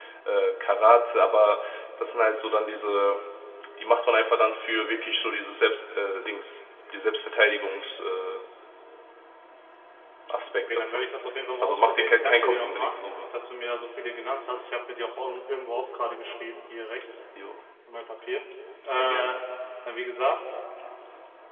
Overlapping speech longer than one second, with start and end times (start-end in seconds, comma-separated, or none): 11.6-13.0